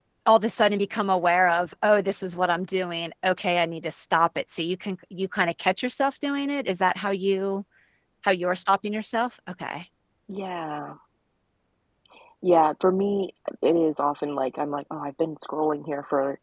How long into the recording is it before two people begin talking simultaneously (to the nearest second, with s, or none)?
none